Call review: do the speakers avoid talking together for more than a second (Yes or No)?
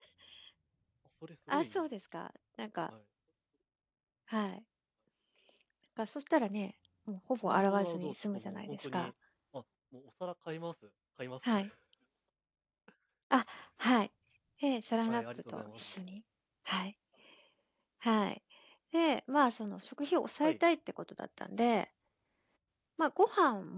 No